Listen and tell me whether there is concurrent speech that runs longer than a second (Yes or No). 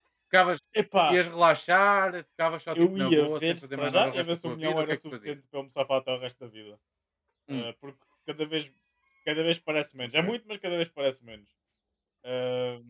Yes